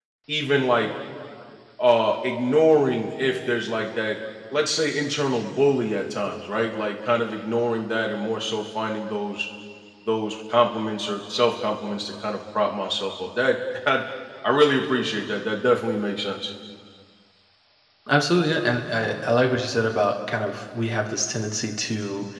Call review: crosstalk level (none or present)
none